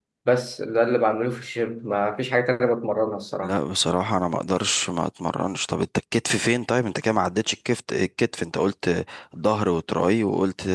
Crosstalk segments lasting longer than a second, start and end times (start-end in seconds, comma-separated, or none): none